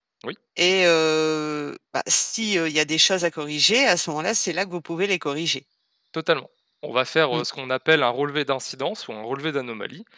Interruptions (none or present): none